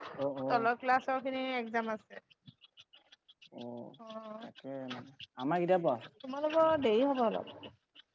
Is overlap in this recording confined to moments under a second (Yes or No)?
Yes